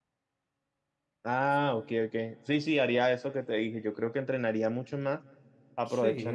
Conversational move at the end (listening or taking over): listening